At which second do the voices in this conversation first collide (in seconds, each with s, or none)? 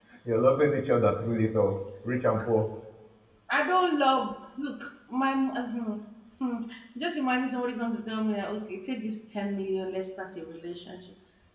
none